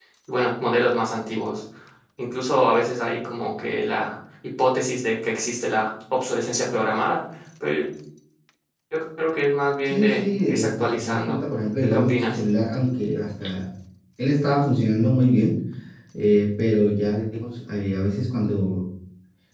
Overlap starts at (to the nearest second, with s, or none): 10 s